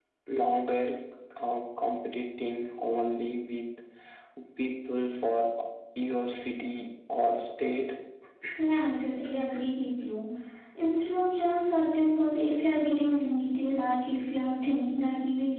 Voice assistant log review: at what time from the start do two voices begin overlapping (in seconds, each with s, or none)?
none